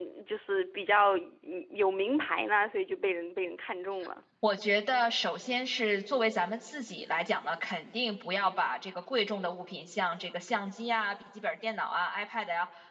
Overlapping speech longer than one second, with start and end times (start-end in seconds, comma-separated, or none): none